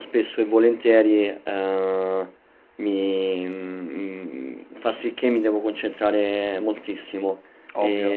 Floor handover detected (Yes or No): No